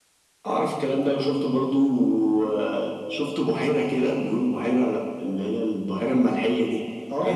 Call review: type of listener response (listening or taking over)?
taking over